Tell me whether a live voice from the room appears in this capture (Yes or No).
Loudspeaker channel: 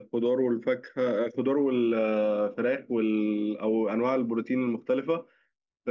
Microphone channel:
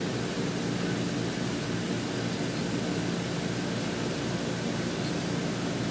No